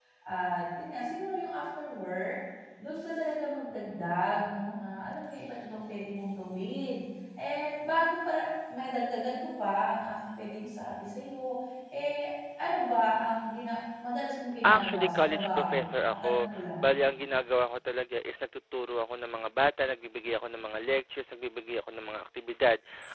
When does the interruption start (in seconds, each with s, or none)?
14.6 s